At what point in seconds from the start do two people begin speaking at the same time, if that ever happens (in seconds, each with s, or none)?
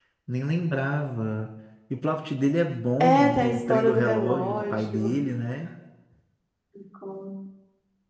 3.0 s